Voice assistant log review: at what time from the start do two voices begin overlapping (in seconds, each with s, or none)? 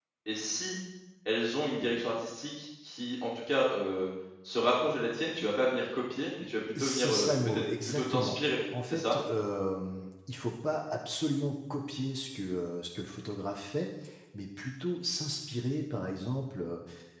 6.8 s